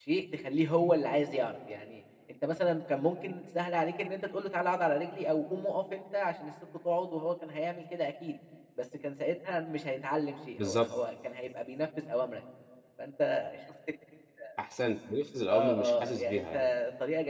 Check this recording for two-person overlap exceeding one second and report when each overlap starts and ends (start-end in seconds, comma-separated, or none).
15.5-16.7